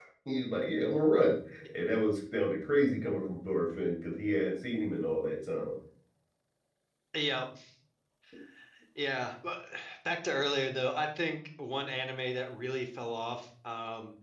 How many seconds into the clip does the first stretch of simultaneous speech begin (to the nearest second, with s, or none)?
none